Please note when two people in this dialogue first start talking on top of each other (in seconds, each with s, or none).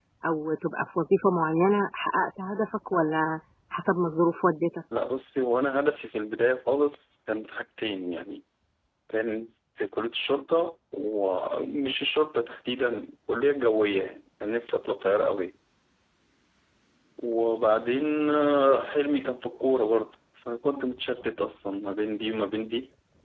none